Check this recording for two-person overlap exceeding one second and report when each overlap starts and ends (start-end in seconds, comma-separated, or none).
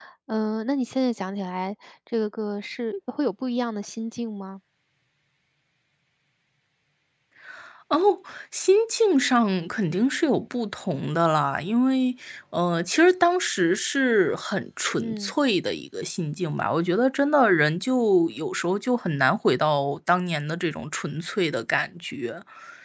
none